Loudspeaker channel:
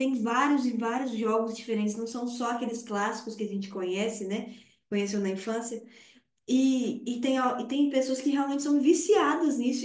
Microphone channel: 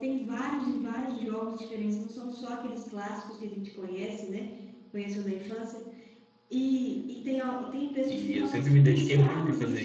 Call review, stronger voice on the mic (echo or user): user